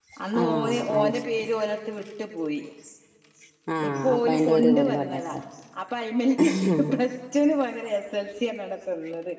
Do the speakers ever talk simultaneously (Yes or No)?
Yes